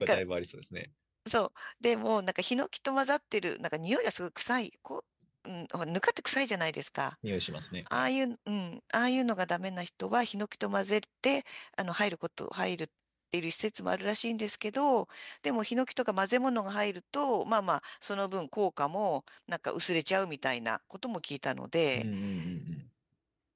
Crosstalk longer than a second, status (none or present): none